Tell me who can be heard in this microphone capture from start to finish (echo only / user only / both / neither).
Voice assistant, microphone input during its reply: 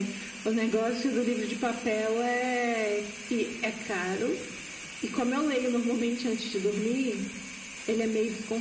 echo only